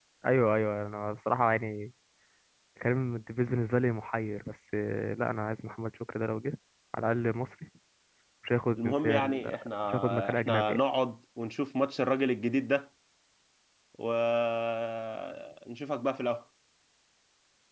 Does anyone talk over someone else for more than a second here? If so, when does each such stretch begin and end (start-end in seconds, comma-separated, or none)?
8.8-10.8